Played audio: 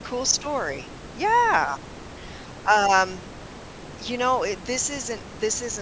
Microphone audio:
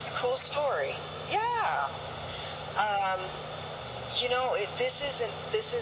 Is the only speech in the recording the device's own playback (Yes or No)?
Yes